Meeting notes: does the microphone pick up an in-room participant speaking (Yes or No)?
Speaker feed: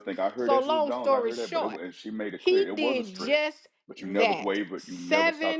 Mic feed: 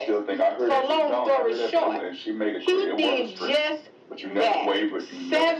No